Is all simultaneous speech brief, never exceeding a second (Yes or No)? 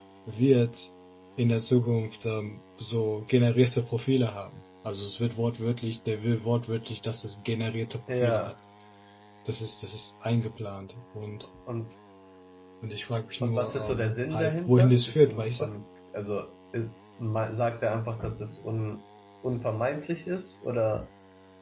No